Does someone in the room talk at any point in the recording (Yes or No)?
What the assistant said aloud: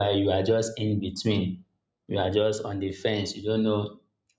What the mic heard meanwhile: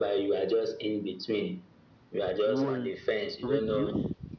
Yes